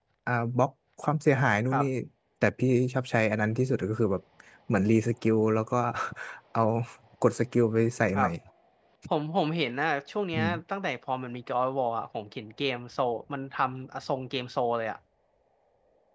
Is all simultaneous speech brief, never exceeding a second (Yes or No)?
Yes